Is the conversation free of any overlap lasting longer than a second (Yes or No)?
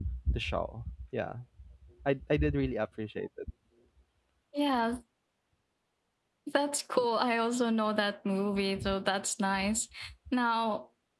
Yes